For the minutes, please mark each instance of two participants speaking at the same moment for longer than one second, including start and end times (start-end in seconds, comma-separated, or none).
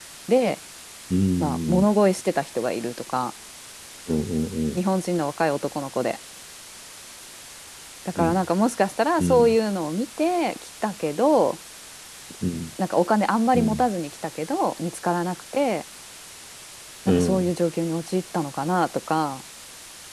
none